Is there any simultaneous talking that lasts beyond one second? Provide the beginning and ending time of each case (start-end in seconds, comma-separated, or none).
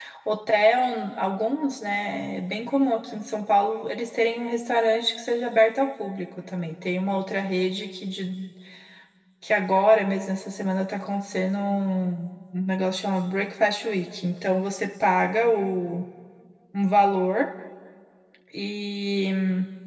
none